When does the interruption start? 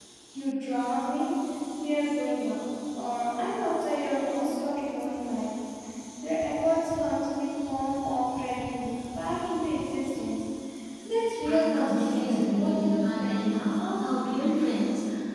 11.5 s

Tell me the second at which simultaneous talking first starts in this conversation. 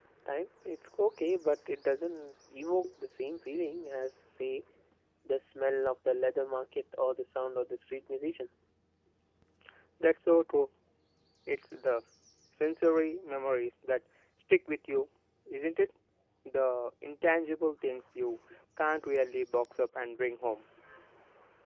none

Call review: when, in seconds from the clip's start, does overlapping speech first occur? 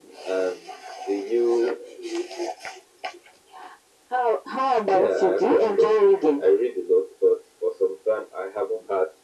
4.9 s

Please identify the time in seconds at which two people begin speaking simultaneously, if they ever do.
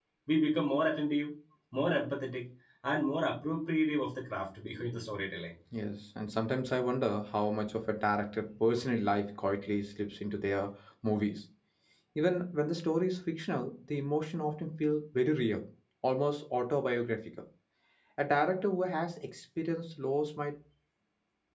none

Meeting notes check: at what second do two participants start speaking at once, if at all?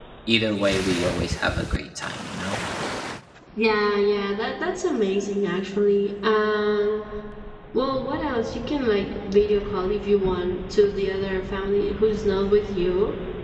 none

